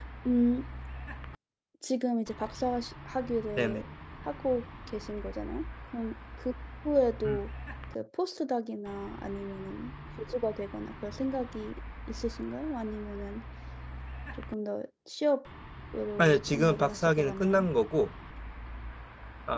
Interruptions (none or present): present